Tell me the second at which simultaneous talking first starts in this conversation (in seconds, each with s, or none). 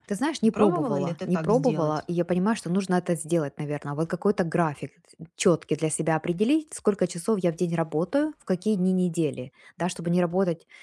0.5 s